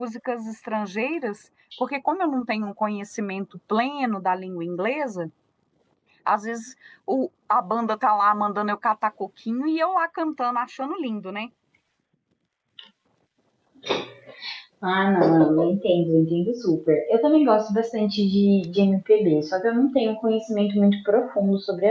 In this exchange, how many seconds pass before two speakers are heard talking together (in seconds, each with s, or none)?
none